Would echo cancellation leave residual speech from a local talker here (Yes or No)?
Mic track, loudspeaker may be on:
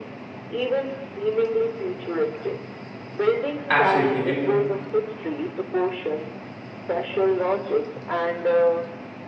Yes